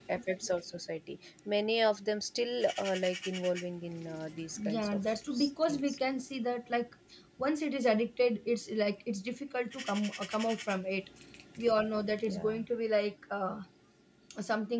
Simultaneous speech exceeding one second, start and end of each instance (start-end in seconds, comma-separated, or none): 4.6-6.0